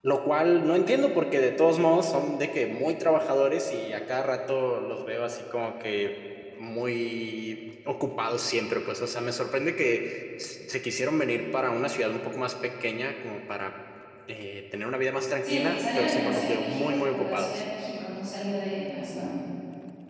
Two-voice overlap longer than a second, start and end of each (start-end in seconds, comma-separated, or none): 15.4-17.6